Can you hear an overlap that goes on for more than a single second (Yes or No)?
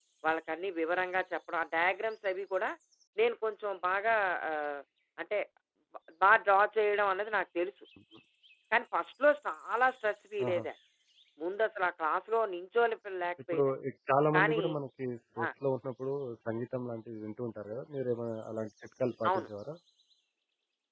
No